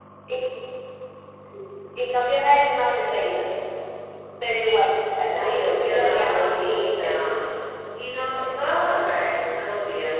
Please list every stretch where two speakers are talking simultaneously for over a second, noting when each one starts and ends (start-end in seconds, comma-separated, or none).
5.3-7.3